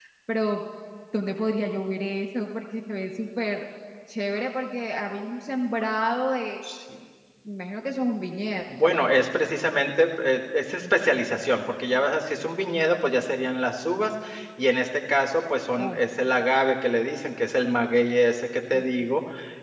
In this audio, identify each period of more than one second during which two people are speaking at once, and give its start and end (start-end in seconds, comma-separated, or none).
none